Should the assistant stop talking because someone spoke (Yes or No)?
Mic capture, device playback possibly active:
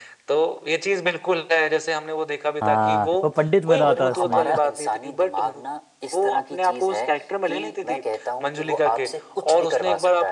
Yes